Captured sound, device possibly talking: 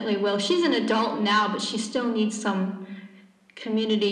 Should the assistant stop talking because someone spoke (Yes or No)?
No